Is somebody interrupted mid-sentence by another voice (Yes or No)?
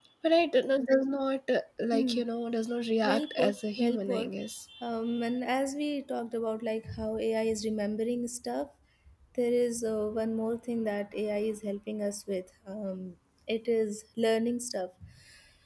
Yes